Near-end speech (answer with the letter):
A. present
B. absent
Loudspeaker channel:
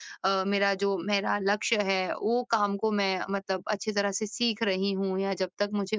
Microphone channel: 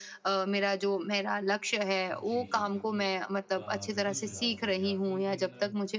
A